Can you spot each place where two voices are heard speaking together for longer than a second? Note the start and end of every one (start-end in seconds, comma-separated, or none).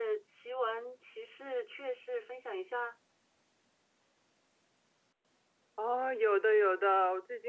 none